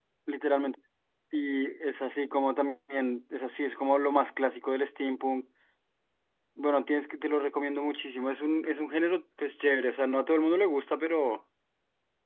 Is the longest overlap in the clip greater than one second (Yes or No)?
No